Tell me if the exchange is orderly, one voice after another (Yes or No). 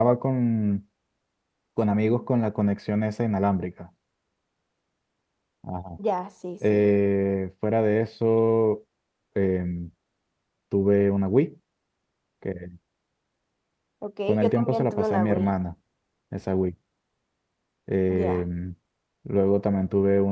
No